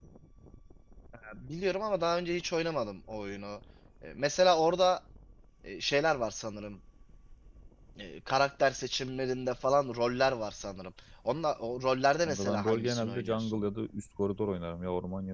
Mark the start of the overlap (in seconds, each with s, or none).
12.2 s